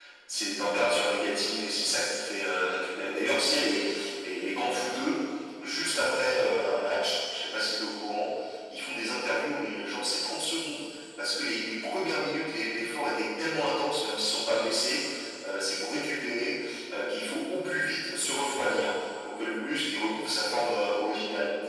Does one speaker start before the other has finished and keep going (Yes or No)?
No